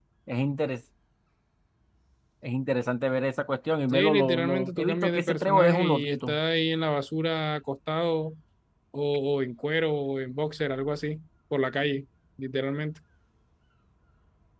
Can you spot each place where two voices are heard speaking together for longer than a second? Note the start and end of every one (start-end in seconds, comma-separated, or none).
3.9-6.4